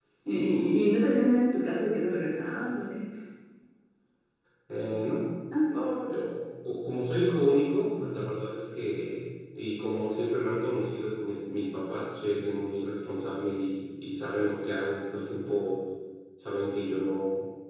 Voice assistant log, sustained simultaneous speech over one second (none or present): none